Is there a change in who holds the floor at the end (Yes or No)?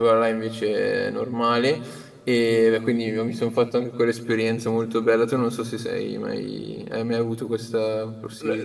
Yes